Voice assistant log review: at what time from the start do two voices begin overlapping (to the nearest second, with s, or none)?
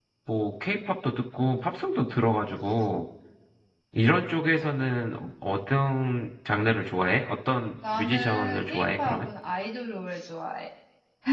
8 s